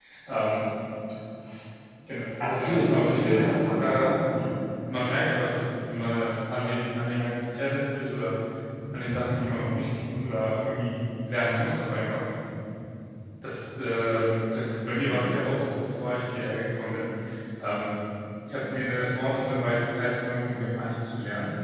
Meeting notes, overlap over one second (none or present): present